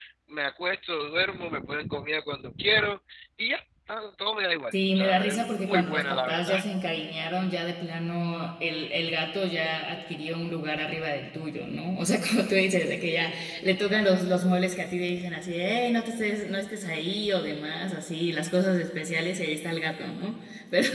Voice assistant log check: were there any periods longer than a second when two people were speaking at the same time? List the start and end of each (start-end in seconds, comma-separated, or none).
4.7-6.6